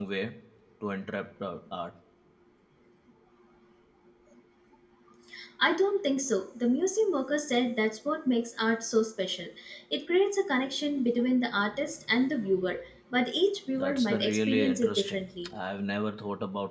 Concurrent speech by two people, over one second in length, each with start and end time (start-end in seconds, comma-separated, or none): 13.8-15.5